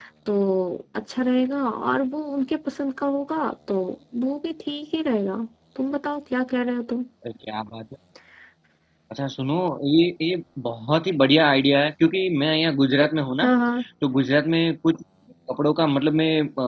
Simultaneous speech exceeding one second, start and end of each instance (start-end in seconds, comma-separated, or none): none